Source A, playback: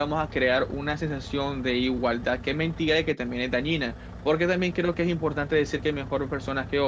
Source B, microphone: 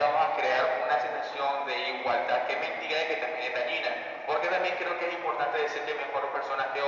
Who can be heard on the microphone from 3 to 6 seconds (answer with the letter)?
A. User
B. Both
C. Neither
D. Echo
D